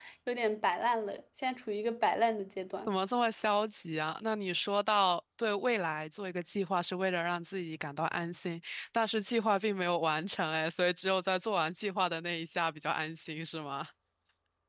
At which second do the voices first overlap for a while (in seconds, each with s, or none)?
none